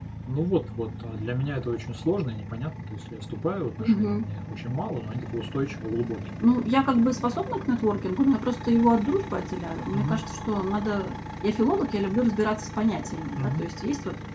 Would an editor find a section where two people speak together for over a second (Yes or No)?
No